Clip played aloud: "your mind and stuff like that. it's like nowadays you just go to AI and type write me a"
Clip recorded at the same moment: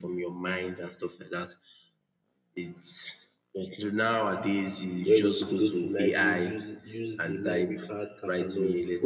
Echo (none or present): present